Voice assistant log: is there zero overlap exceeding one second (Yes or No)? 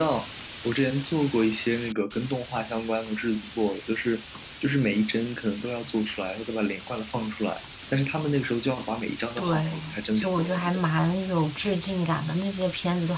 No